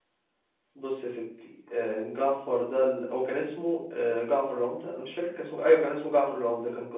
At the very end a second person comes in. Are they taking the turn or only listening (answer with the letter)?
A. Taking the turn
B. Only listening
B